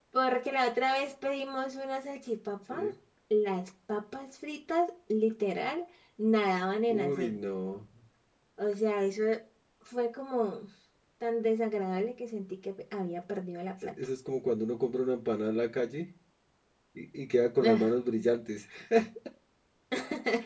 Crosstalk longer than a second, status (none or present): none